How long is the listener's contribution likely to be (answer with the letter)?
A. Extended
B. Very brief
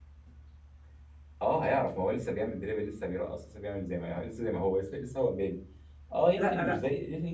B